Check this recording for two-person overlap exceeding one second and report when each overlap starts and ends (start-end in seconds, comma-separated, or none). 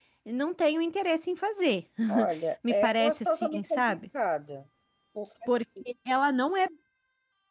2.7-4.0